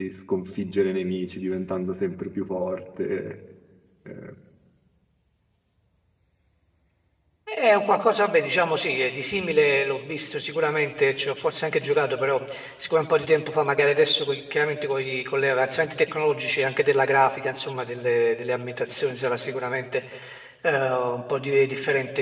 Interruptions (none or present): none